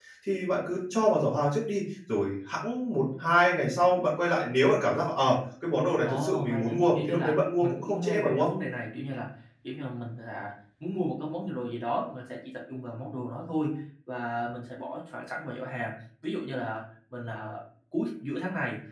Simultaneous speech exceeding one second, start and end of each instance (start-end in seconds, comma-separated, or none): 6.0-8.5